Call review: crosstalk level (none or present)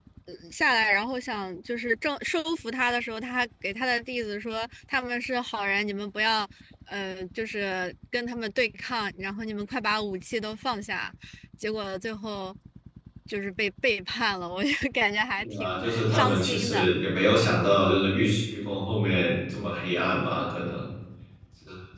present